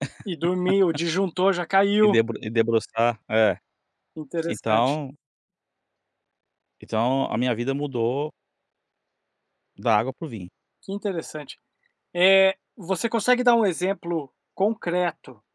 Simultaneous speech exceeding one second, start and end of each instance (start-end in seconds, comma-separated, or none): none